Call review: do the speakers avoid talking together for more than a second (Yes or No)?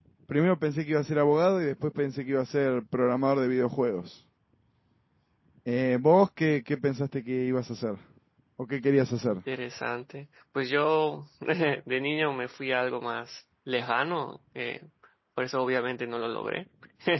Yes